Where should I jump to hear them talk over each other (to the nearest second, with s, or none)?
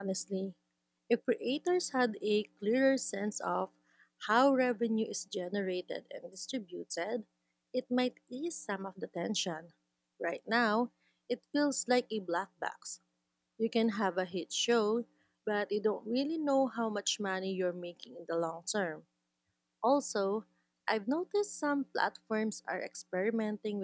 none